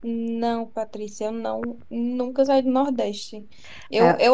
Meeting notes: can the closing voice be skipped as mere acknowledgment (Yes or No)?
Yes